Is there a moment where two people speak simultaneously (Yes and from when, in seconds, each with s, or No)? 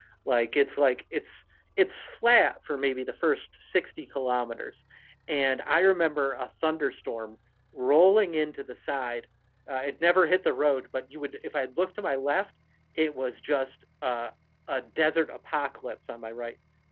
No